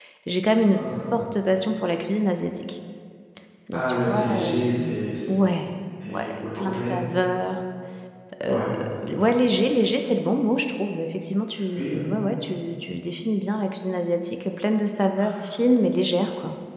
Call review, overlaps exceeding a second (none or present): present